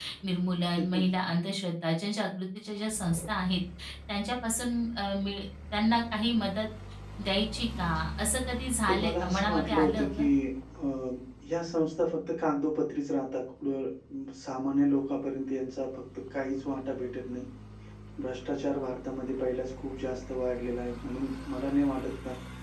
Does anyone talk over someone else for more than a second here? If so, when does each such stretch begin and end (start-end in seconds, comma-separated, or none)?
8.9-10.2